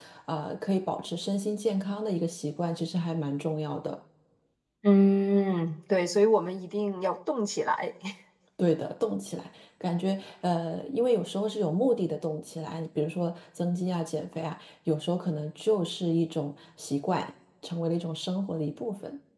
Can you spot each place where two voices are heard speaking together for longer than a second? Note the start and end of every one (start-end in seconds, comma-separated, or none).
none